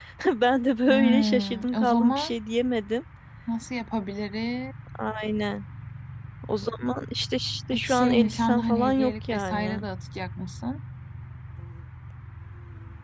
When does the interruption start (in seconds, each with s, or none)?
0.9 s